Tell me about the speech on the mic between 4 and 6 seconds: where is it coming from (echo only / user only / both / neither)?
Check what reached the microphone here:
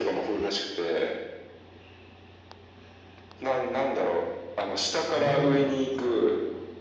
both